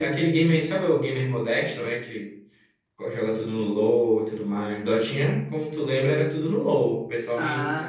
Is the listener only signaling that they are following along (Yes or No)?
Yes